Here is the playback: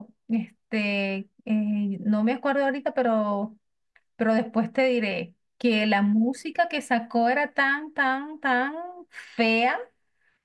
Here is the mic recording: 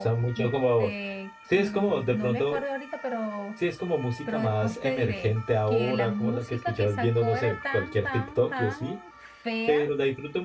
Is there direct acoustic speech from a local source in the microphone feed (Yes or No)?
Yes